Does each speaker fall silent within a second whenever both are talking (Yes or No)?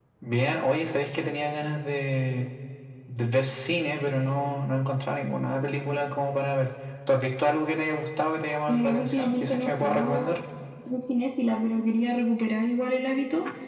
No